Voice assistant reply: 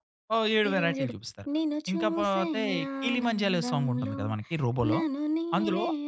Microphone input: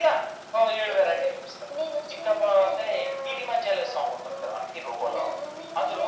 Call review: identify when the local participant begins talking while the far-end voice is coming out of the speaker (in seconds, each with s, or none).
none